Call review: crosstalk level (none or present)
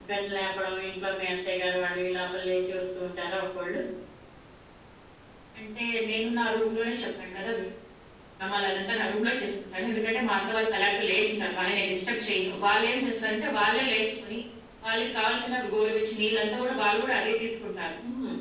none